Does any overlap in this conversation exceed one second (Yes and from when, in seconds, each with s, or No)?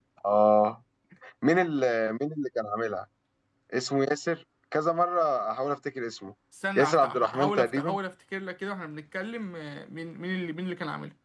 Yes, from 6.8 s